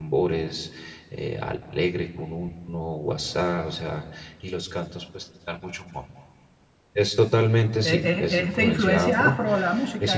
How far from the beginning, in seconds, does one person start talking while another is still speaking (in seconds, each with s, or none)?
7.8 s